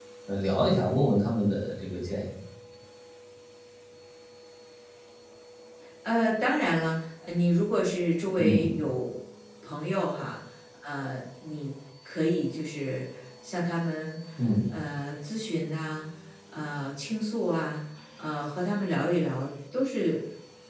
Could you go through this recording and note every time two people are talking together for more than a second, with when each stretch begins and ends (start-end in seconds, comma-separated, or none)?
none